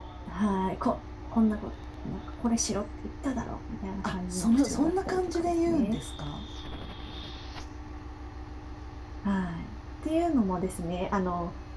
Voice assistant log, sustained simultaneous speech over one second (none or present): present